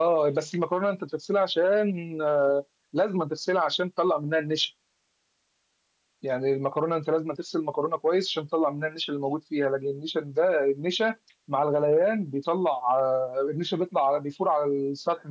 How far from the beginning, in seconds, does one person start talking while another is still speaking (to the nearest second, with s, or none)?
none